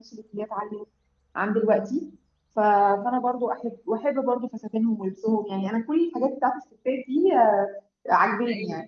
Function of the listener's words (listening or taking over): listening